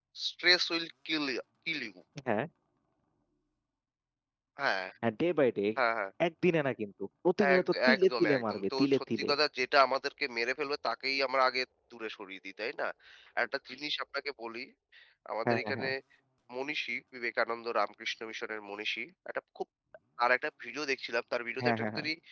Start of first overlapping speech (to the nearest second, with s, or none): 8 s